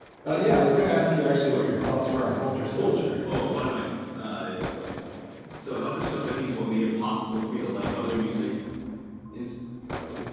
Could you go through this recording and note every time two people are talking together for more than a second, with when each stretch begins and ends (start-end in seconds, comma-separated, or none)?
none